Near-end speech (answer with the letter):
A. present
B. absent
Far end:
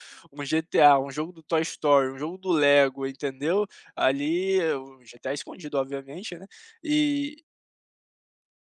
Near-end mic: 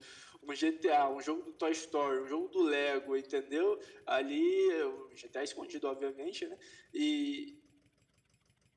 B